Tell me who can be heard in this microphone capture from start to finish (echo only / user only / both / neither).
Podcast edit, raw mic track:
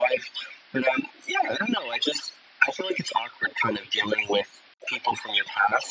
echo only